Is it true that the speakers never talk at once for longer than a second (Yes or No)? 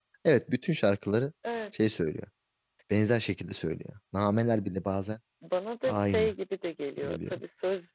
Yes